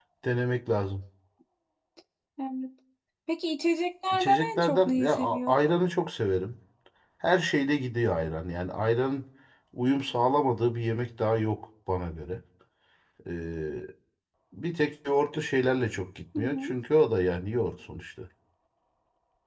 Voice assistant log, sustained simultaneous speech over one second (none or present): present